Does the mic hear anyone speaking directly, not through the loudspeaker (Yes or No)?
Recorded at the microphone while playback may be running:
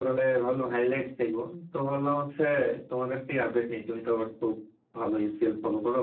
No